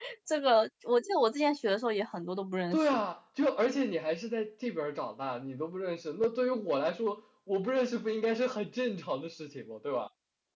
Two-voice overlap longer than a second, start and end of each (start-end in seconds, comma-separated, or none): none